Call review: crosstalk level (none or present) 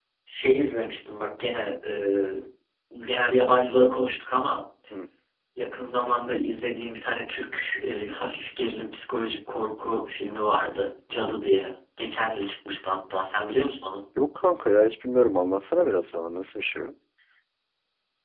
none